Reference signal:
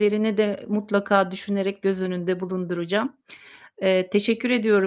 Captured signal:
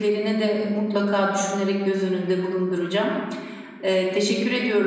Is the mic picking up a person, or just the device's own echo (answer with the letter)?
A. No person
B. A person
A